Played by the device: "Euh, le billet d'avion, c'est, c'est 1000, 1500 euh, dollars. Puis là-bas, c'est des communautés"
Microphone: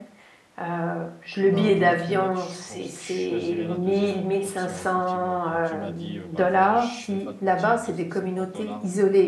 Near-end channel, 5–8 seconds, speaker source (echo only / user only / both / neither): both